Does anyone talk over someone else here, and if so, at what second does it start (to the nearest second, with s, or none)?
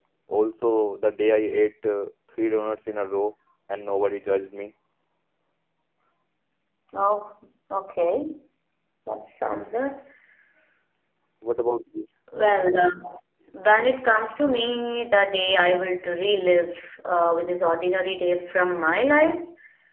none